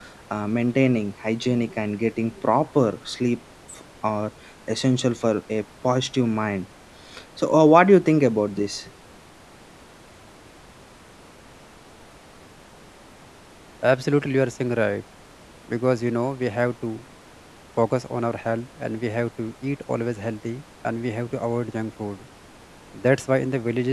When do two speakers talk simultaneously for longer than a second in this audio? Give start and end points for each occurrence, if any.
none

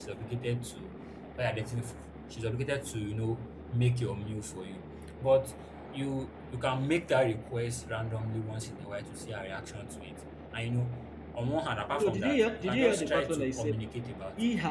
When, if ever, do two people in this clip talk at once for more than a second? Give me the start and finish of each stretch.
11.9-13.7

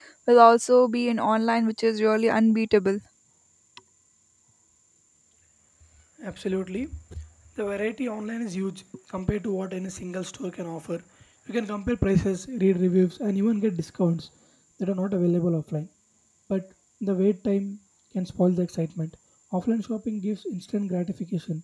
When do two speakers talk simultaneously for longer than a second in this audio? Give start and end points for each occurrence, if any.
none

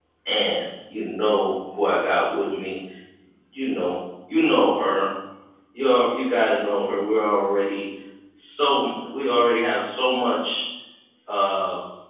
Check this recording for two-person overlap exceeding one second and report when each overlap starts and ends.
none

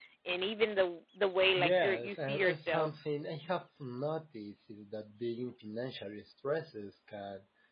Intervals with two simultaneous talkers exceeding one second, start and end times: 1.6-2.9

